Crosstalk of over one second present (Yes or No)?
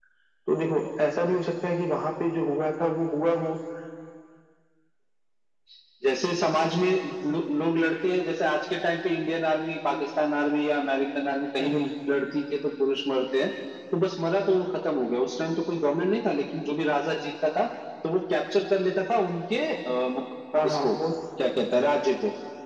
No